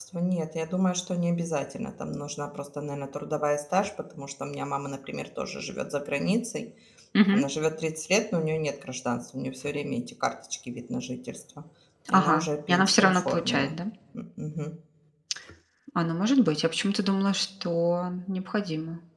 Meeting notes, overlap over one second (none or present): present